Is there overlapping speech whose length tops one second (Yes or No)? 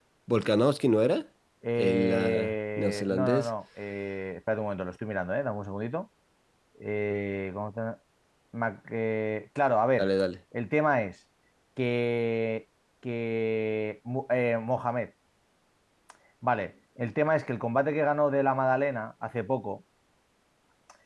Yes